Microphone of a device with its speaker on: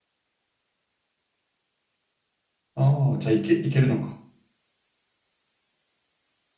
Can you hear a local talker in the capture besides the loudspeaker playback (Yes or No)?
Yes